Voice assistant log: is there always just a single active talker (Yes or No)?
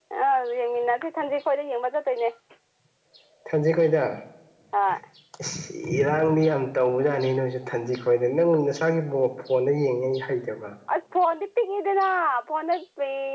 Yes